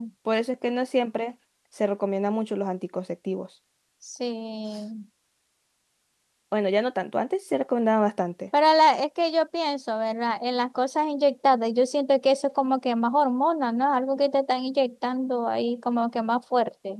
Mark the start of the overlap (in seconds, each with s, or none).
none